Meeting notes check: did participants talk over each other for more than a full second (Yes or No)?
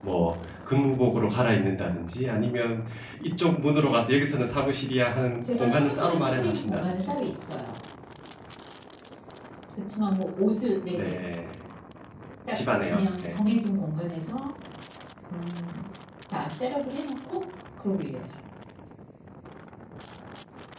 Yes